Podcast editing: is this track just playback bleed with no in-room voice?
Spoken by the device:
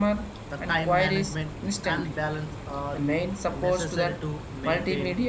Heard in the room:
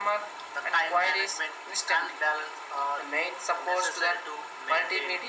Yes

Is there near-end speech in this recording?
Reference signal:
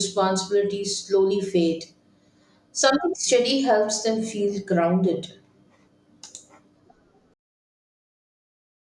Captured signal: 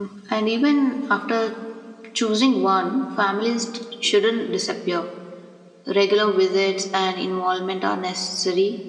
Yes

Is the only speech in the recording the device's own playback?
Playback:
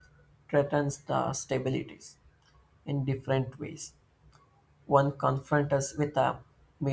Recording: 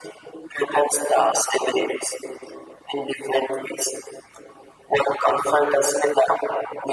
Yes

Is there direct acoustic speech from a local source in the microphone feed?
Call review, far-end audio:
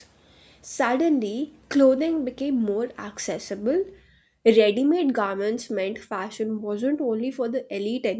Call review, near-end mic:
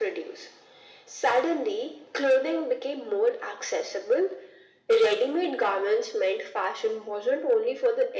No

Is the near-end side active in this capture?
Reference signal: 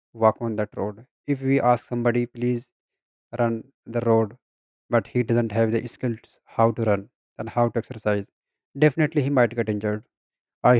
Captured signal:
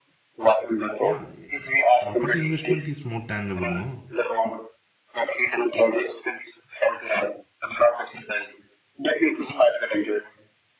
Yes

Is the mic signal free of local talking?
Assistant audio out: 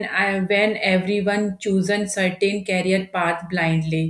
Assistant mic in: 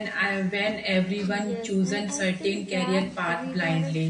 No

